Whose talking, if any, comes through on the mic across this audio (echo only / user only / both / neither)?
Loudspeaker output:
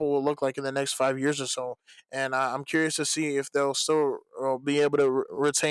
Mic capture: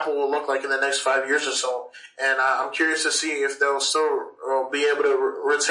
echo only